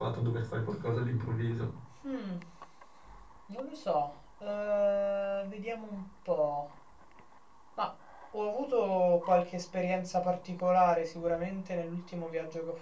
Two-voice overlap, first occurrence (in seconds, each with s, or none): none